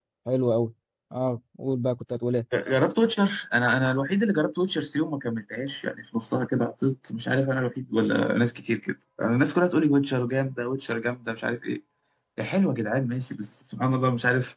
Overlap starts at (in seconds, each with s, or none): none